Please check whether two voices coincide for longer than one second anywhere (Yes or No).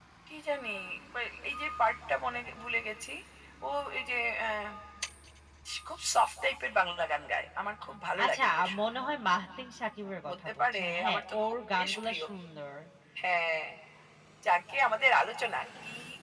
Yes